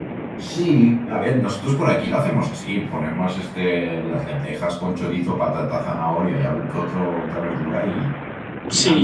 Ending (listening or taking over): taking over